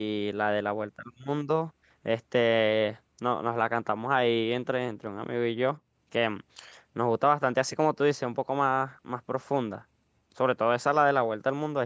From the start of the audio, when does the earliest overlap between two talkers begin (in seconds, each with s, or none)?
none